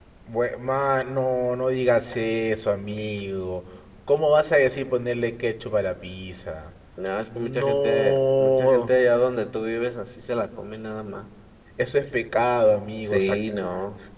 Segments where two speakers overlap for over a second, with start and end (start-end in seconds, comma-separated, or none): 7.4-8.9